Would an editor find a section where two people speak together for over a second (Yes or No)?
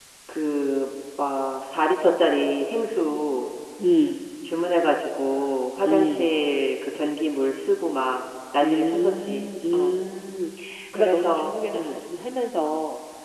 Yes